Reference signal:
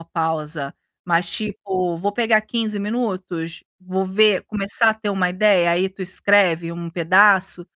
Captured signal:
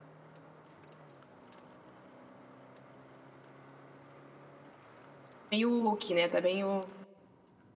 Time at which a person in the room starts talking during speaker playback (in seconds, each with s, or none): 5.5 s